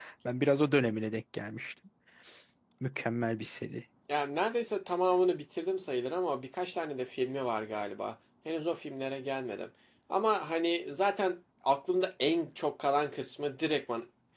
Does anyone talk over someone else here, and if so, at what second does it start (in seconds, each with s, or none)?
none